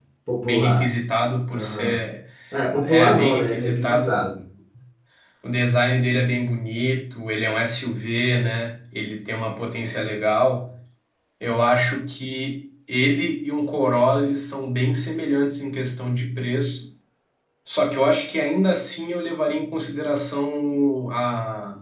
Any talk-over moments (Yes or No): Yes